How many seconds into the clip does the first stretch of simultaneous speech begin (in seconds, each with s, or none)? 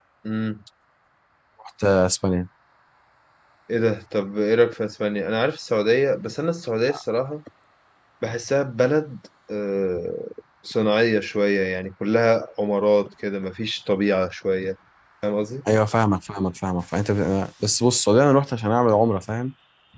none